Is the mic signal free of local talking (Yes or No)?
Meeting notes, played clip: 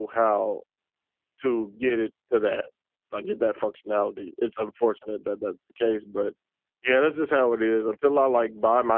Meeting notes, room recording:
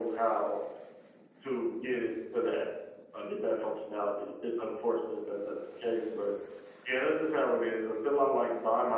Yes